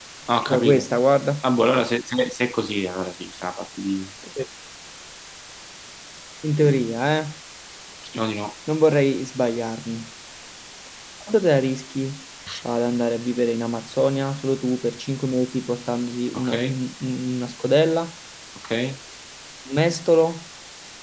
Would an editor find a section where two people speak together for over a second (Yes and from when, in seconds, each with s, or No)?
No